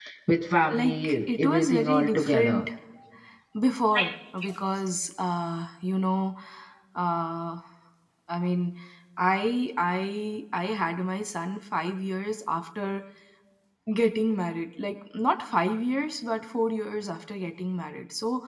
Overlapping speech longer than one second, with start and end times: 0.7-2.6

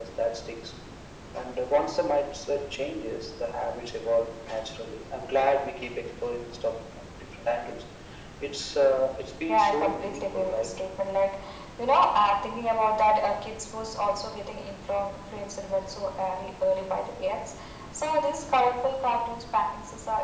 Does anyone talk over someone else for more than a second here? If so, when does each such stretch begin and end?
9.5-10.7

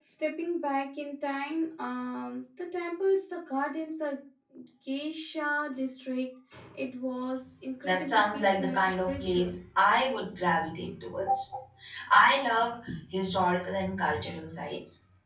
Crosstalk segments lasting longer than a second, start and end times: 7.8-9.5

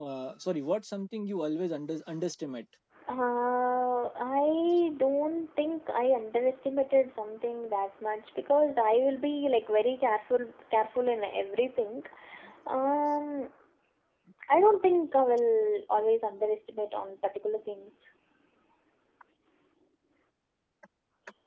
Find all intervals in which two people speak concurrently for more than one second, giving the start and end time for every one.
none

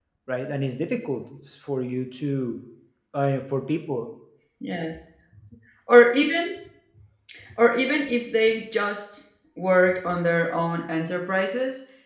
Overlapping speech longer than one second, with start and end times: none

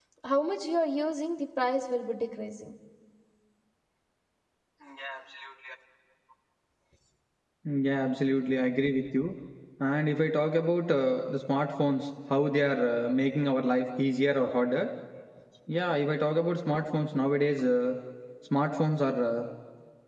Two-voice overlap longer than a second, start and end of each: none

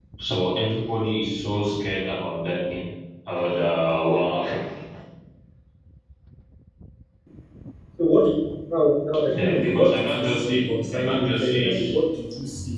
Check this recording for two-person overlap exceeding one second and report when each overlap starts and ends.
9.3-12.0

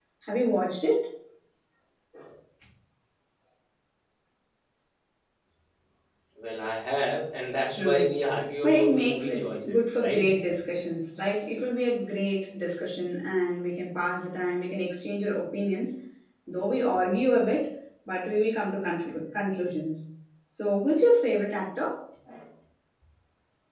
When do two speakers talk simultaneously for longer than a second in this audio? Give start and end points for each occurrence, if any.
8.6-10.4

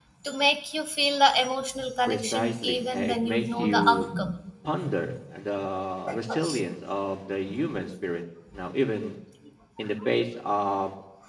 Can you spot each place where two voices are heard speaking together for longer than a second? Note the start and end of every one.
2.1-4.0

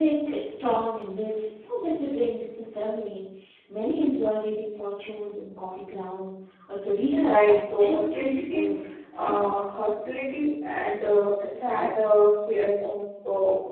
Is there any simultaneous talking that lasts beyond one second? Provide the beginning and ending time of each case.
7.1-8.7

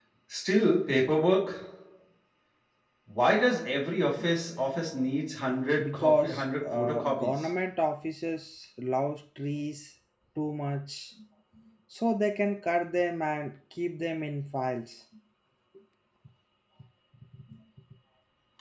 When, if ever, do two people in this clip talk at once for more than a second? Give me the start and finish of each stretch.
5.8-7.5

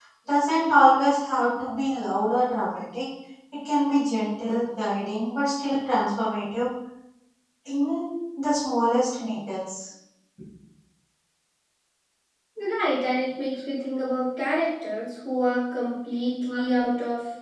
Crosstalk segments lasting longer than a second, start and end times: none

